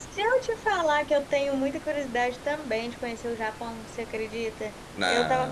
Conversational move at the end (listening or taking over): listening